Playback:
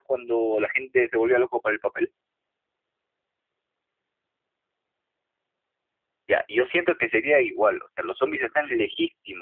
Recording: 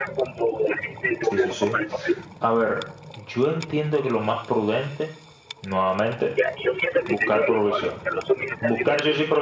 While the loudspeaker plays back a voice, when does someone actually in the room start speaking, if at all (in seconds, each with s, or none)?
1.2 s